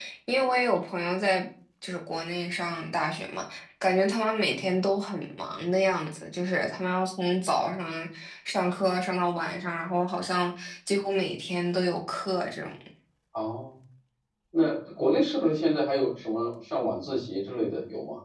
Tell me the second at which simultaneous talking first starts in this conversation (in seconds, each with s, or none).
none